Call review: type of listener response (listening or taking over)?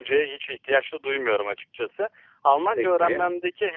listening